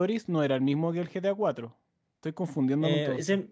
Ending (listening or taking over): taking over